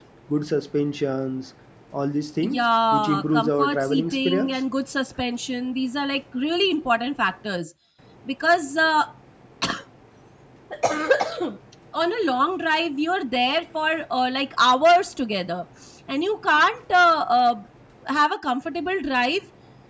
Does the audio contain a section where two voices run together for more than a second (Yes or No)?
Yes